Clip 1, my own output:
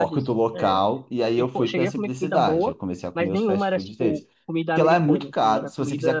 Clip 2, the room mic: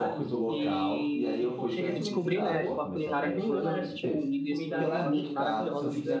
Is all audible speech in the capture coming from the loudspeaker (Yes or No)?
No